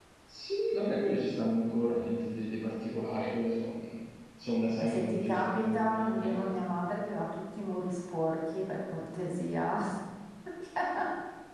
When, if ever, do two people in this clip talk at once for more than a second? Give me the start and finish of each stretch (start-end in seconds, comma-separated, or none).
4.8-6.5